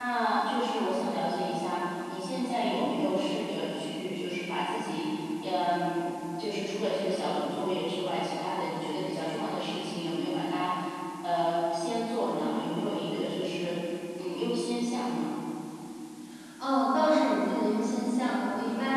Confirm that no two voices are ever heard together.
Yes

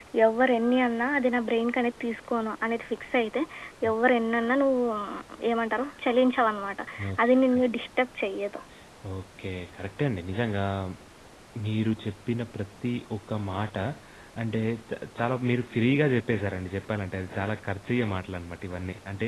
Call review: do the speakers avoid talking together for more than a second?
Yes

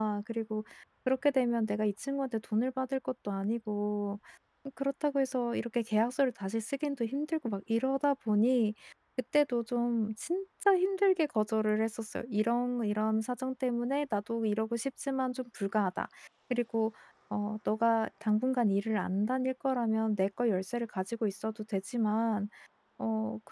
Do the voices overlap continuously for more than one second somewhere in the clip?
No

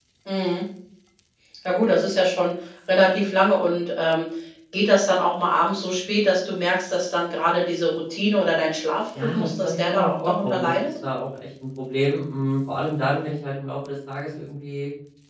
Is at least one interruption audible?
Yes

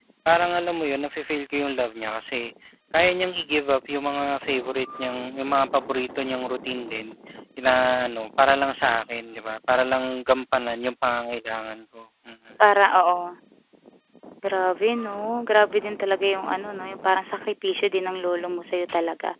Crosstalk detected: No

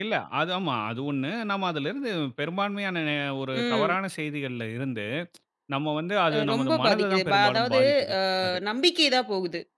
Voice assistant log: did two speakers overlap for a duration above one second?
Yes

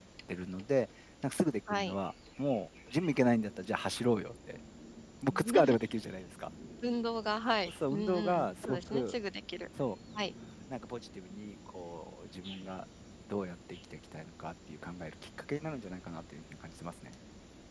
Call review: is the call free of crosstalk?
No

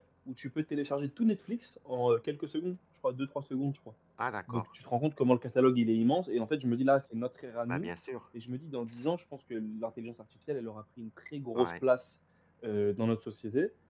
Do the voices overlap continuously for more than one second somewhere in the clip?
No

